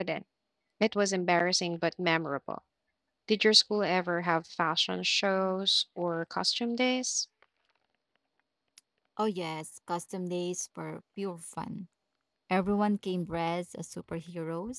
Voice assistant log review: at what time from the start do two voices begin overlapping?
none

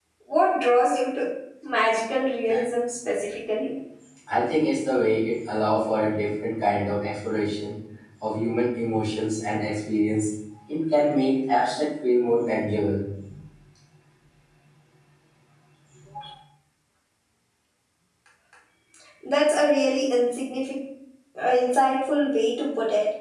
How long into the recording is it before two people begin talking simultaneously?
none

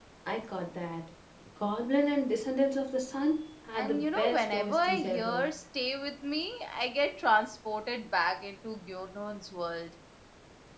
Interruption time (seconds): 4 s

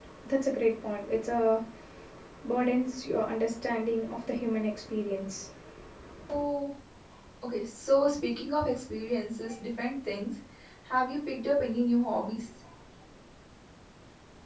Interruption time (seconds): none

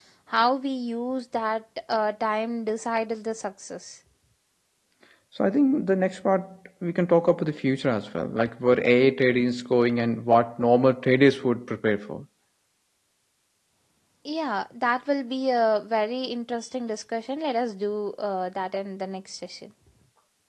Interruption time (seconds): none

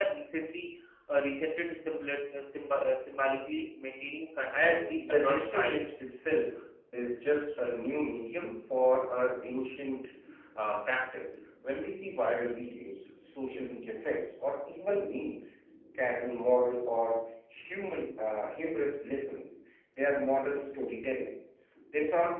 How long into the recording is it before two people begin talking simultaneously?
5 s

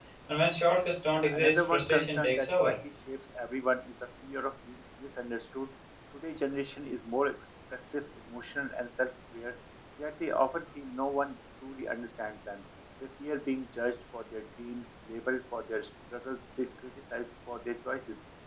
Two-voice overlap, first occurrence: 1 s

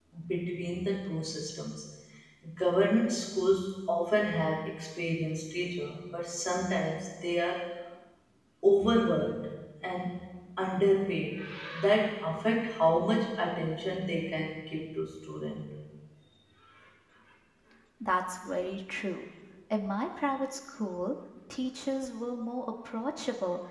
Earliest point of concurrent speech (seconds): none

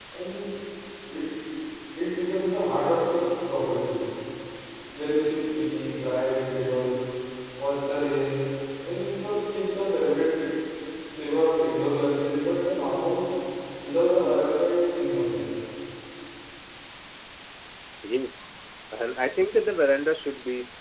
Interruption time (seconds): none

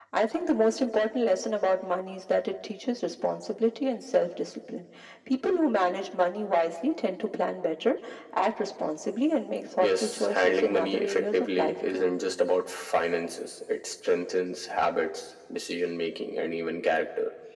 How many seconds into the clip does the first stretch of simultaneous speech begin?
10 s

